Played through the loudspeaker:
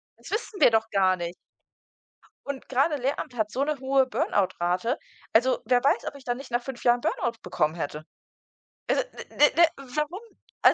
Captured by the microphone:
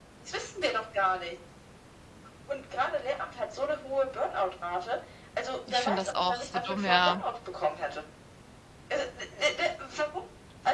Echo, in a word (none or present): present